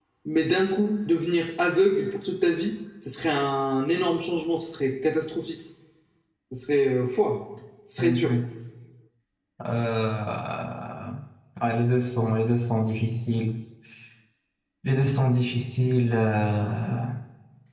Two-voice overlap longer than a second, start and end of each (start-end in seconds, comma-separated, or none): none